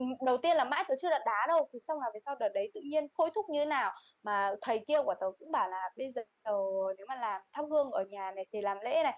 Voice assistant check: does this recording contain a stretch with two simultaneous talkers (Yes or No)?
No